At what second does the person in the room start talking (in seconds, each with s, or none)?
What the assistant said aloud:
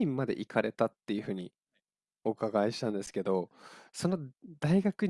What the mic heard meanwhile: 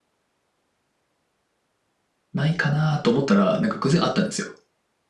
2.3 s